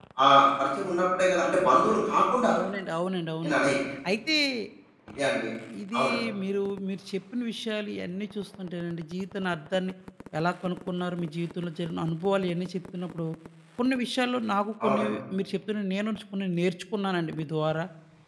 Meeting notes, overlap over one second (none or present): none